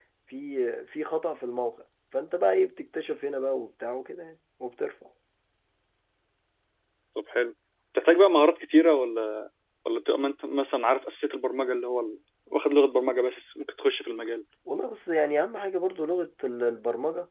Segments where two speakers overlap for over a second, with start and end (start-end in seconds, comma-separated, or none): none